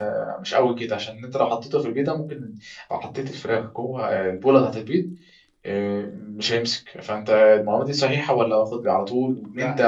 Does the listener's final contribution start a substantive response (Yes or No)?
Yes